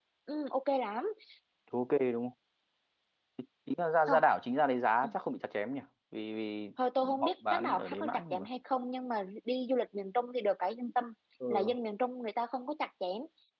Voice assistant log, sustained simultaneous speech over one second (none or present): present